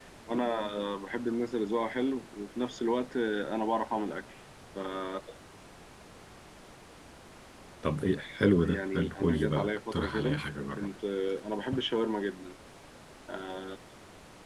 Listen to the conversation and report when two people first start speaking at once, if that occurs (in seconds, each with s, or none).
8.6 s